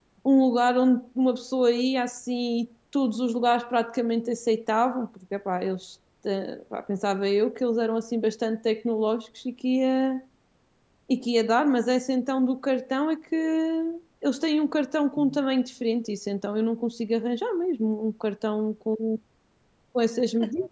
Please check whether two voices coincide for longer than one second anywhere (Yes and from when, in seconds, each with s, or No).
No